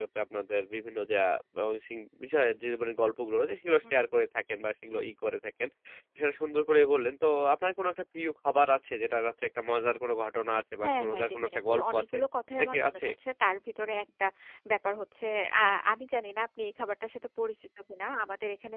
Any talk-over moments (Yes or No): Yes